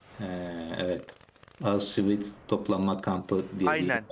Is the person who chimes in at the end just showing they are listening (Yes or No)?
No